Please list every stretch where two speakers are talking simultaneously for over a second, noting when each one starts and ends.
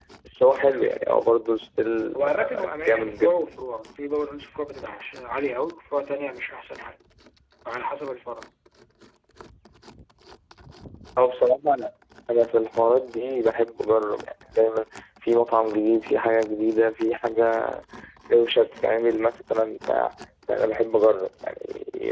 2.2-3.4

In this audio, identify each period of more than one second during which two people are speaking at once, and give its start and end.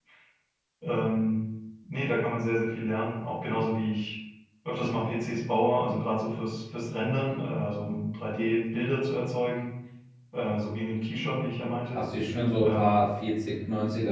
none

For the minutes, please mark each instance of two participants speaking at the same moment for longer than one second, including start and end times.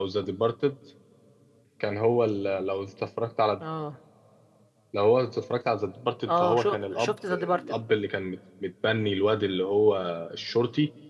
6.3-7.6

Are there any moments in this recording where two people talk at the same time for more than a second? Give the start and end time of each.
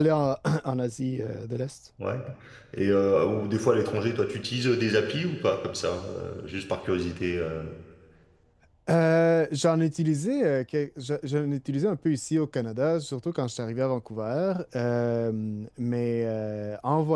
none

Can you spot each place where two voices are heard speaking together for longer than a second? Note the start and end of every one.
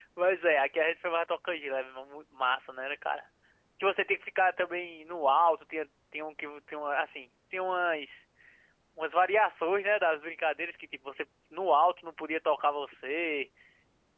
none

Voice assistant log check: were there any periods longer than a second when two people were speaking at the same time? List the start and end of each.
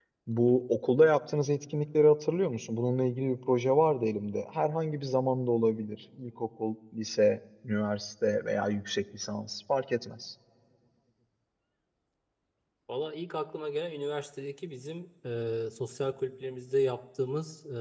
none

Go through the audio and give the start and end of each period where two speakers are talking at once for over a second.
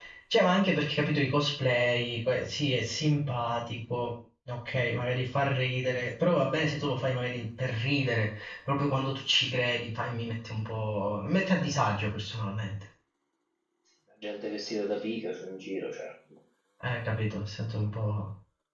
none

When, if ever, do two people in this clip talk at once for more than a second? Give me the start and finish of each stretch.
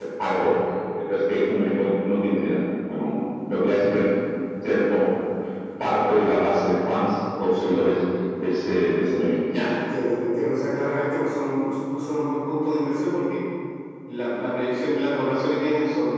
none

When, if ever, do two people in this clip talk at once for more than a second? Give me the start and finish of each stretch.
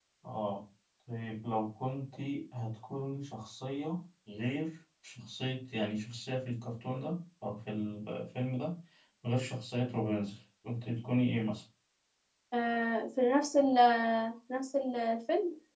none

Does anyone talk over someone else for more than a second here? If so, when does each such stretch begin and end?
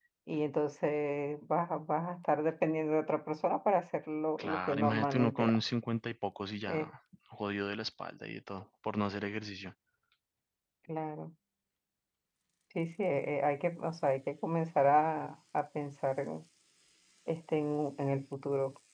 4.4-5.6

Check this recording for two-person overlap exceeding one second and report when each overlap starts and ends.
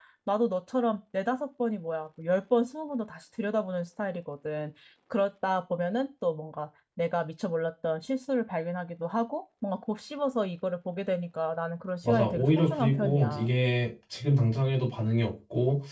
12.0-13.5

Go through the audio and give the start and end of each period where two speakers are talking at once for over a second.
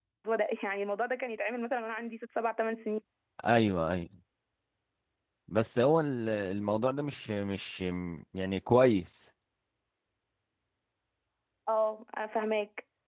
none

